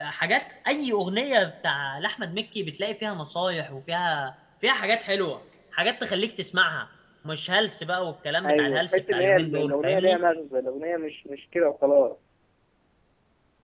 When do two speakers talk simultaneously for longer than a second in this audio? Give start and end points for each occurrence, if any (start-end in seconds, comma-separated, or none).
8.4-10.2